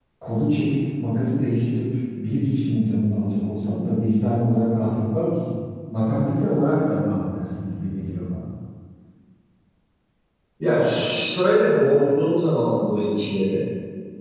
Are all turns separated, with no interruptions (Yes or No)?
Yes